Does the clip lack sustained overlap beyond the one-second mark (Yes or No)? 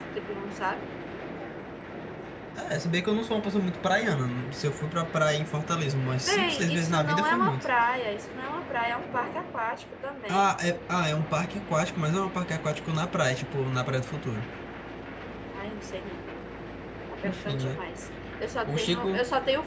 No